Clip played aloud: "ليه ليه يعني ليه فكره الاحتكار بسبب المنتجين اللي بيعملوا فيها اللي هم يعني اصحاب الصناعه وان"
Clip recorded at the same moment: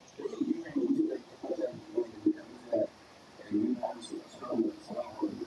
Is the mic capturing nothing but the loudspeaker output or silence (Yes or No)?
Yes